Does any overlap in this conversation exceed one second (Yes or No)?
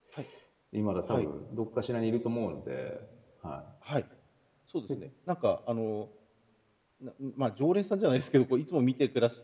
No